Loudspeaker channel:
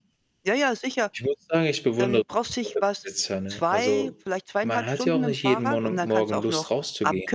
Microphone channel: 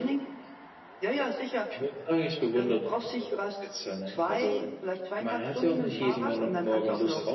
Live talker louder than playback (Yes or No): No